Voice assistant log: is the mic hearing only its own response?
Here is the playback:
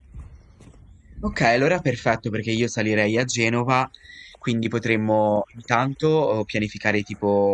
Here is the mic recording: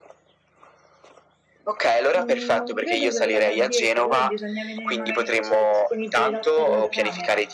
No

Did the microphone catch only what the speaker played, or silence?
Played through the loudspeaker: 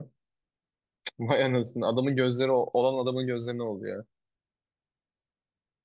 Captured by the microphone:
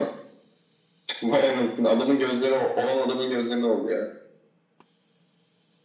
Yes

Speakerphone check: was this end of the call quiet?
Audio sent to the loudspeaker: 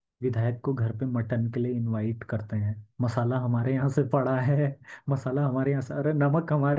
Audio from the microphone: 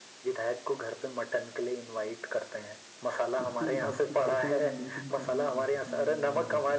No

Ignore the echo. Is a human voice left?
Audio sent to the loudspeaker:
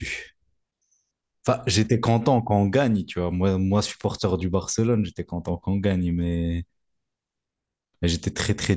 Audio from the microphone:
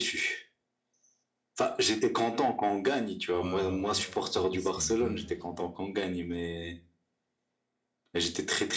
Yes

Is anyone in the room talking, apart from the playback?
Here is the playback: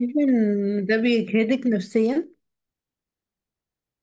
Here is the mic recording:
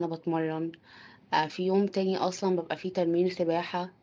Yes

